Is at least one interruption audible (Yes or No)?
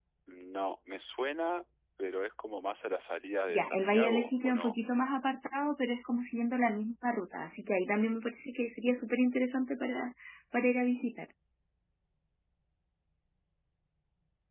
Yes